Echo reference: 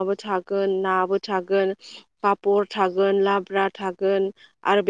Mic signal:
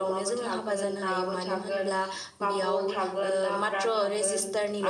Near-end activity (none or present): present